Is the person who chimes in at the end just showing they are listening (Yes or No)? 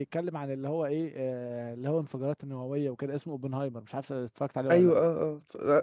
No